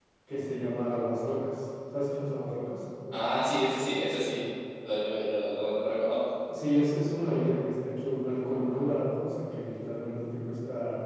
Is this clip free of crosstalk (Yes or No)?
Yes